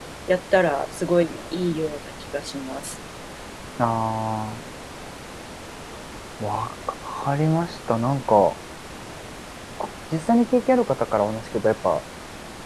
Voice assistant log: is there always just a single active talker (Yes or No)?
Yes